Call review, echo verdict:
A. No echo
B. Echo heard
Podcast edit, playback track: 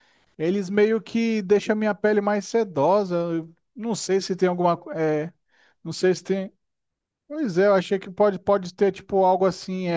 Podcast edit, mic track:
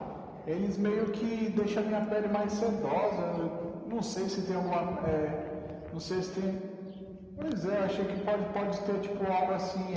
B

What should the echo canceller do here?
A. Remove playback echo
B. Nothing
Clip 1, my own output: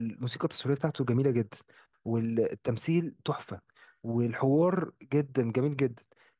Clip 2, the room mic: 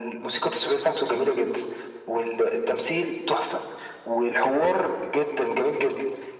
A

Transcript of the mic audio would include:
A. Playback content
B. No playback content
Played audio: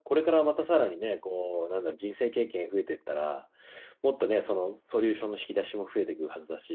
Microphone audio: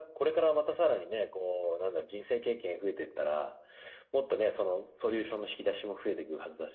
A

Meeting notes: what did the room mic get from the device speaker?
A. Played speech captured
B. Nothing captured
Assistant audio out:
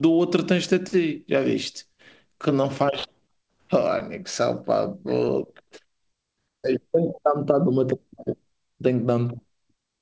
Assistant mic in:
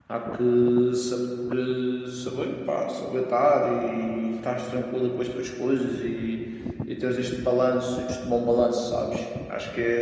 B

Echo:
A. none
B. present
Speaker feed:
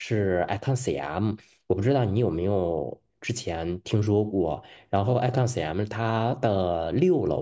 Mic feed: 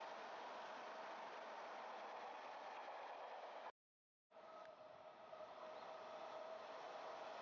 A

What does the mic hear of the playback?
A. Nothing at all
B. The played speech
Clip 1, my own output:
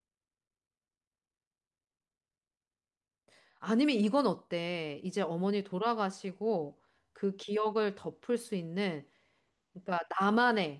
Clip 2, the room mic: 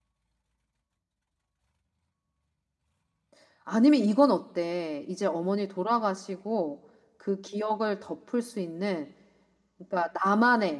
B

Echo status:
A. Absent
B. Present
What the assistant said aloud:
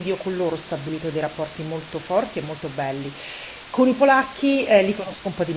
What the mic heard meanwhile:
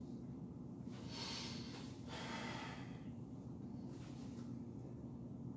A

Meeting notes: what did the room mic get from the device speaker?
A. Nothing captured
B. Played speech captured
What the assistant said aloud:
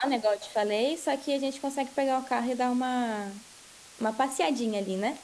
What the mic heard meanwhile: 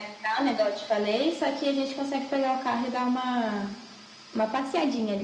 B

